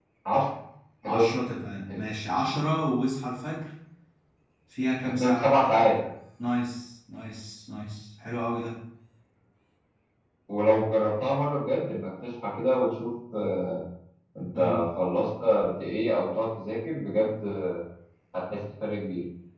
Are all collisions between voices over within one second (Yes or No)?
Yes